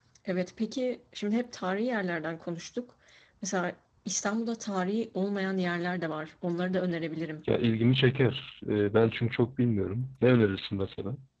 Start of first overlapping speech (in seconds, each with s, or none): none